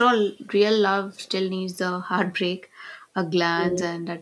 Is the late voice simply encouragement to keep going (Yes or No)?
Yes